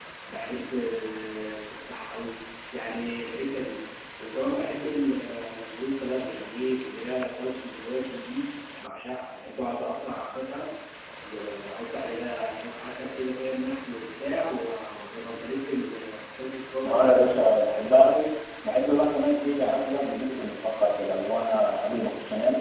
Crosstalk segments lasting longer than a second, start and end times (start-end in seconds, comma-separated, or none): none